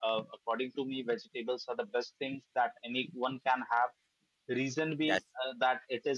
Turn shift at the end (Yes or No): No